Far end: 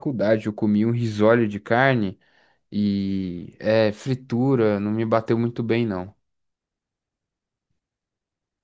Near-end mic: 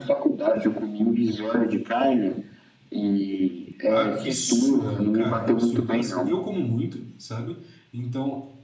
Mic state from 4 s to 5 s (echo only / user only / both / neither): both